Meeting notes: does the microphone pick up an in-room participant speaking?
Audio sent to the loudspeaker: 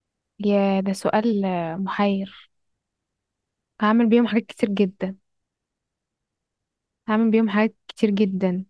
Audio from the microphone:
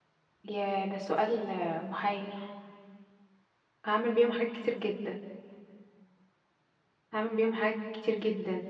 No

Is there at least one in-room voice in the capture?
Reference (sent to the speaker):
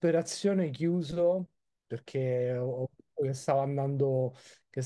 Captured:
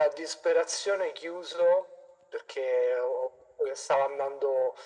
No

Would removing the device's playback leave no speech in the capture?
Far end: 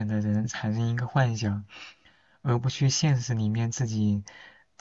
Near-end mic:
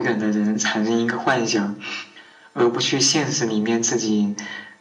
Yes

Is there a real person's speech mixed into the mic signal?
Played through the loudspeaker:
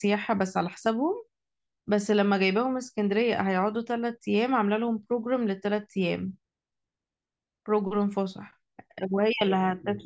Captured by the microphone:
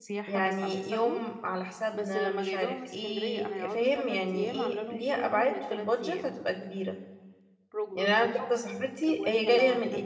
Yes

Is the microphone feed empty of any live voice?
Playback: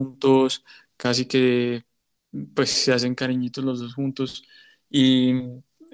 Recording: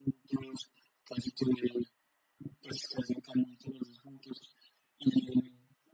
Yes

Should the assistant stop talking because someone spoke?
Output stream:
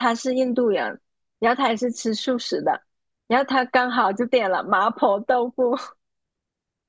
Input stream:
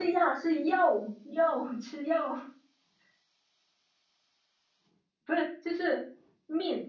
Yes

